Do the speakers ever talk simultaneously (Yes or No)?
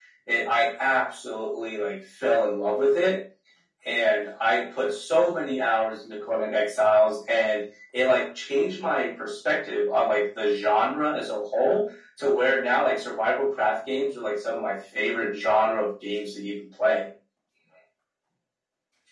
No